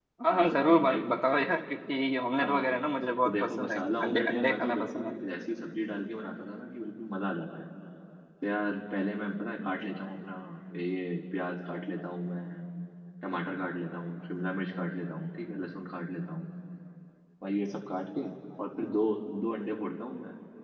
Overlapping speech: Yes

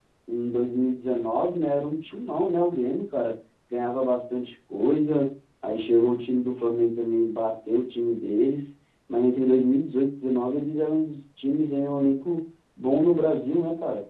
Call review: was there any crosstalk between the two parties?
No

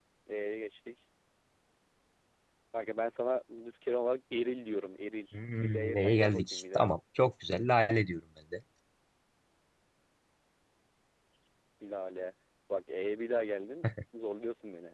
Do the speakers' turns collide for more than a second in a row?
Yes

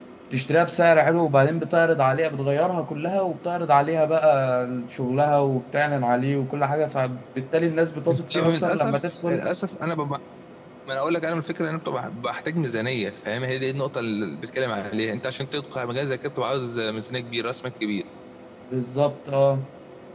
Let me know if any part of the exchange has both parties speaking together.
Yes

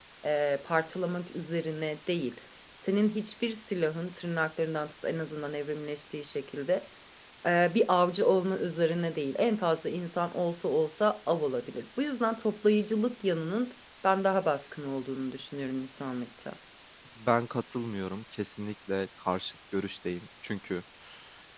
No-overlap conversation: Yes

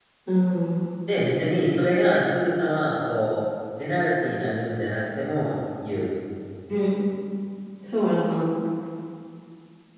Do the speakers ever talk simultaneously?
No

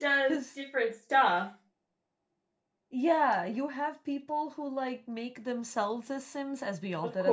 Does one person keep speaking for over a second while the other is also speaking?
No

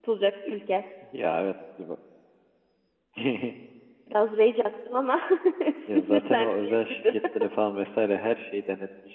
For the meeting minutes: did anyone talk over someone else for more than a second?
Yes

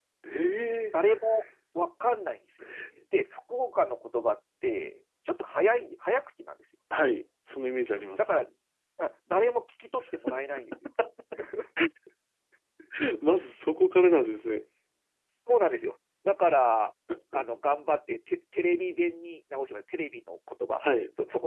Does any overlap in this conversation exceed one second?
No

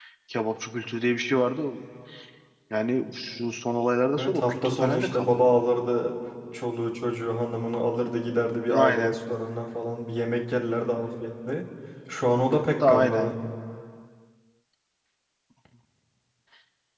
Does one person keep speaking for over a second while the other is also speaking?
Yes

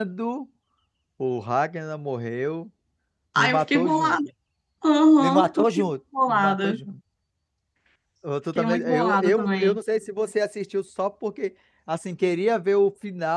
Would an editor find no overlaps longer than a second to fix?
No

